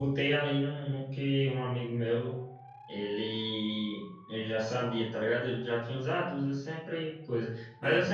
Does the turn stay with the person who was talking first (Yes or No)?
Yes